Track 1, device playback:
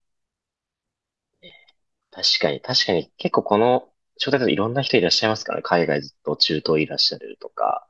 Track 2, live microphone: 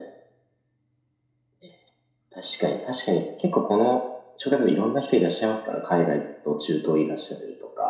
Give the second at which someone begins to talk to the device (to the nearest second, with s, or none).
none